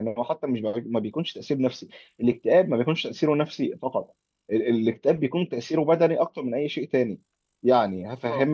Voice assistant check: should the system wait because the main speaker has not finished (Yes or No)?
Yes